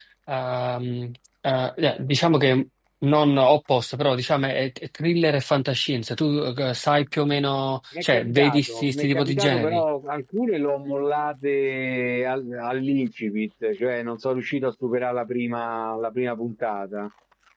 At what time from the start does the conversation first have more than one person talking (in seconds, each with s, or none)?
7.9 s